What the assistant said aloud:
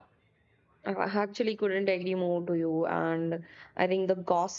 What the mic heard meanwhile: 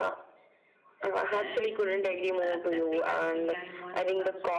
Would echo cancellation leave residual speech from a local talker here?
Yes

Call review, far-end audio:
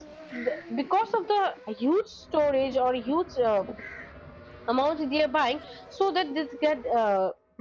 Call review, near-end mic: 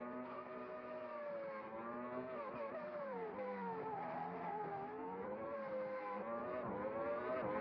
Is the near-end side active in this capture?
No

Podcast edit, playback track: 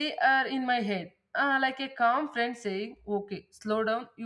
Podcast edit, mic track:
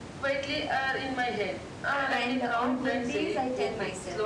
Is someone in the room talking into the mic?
Yes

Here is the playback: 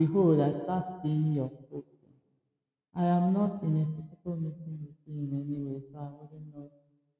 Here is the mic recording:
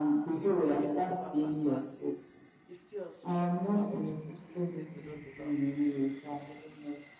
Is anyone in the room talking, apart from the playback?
Yes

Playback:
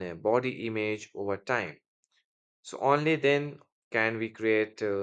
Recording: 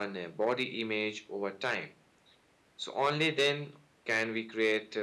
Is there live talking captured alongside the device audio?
No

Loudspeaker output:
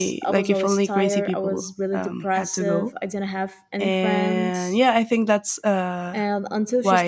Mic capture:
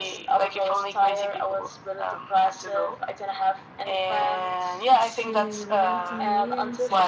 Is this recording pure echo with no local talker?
No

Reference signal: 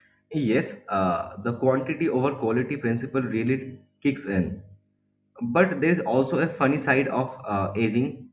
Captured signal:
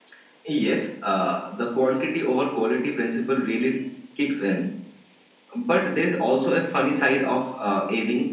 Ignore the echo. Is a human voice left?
No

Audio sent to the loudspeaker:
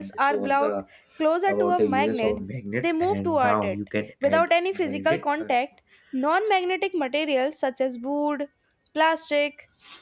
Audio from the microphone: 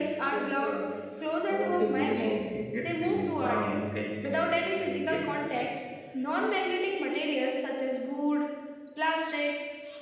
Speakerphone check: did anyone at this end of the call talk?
No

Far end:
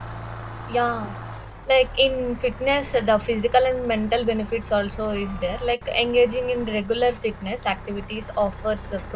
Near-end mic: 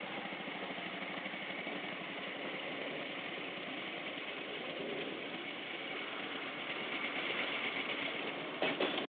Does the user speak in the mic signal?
No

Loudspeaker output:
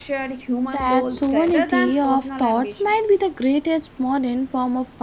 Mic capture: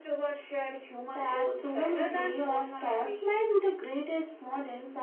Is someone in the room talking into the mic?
No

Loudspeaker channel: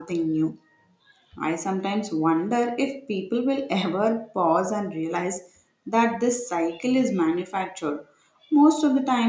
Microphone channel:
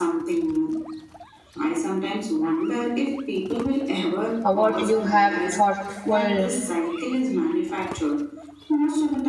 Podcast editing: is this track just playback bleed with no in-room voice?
No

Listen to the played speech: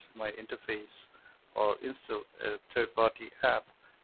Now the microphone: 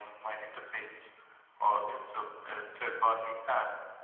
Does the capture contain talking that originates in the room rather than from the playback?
No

